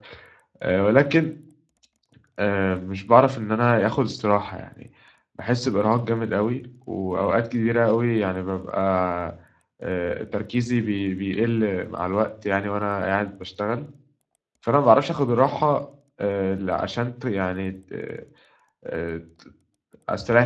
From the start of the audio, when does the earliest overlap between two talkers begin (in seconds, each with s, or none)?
none